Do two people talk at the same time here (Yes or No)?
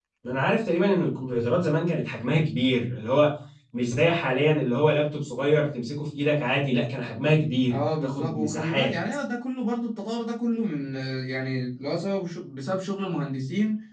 Yes